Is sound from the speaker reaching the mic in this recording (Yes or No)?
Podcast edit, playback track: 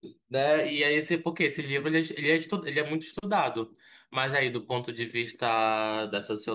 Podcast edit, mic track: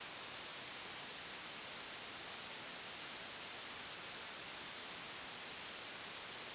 No